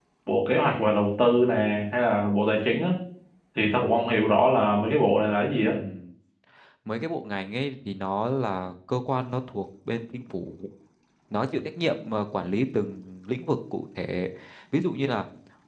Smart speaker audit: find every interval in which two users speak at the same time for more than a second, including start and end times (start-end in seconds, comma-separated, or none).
none